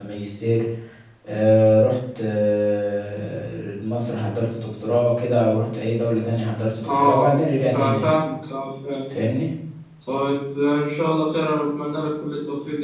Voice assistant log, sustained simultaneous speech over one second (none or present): none